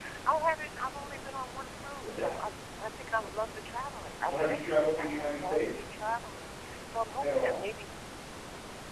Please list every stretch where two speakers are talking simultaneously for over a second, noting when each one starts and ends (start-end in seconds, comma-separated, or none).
4.2-5.9